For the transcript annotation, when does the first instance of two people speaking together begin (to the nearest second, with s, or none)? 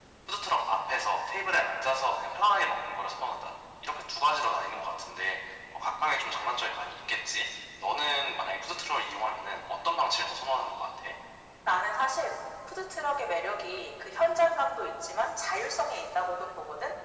none